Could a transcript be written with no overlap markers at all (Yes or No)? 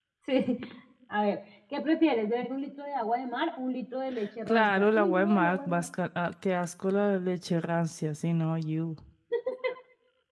No